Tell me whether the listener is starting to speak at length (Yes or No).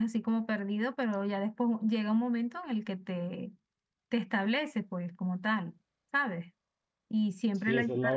Yes